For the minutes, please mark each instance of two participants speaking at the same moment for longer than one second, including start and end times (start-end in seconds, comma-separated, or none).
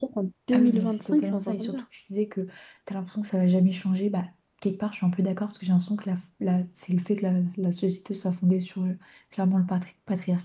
0.5-1.8